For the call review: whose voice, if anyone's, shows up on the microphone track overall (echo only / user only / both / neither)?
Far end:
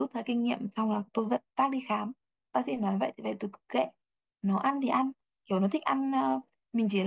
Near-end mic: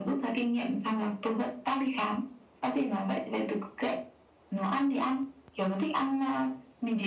echo only